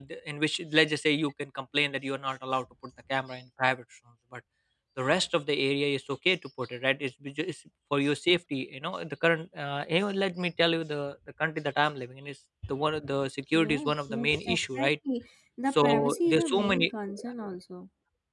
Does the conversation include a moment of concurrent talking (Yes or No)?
Yes